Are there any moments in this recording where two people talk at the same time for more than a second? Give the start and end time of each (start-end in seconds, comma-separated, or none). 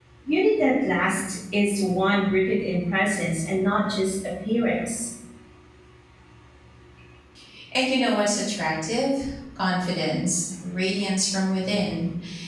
none